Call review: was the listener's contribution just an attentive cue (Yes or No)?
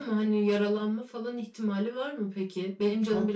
No